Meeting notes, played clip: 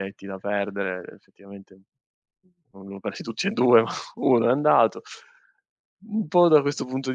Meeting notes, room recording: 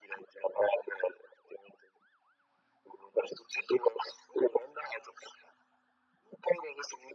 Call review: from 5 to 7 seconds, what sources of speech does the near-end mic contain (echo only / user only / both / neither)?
echo only